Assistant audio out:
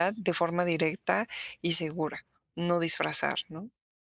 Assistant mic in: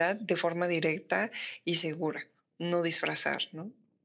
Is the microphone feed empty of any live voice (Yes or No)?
Yes